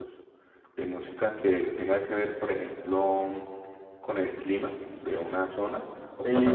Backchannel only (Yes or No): No